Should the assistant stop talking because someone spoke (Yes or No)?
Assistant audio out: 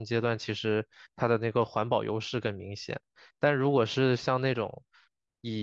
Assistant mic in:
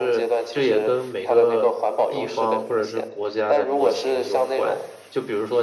Yes